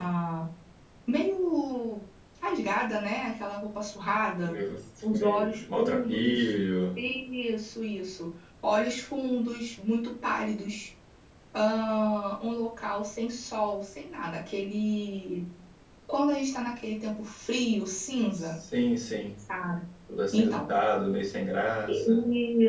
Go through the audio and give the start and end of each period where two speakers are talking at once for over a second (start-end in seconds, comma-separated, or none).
5.1-6.5